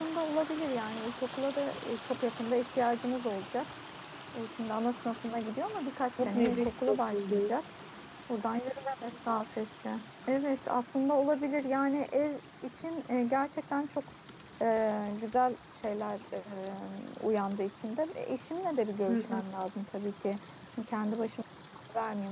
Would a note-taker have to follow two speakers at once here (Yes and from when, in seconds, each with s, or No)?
Yes, from 6.2 s